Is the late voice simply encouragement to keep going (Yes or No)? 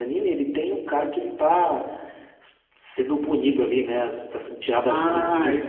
No